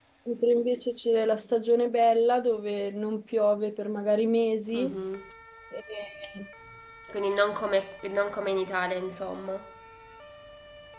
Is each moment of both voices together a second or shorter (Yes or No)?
Yes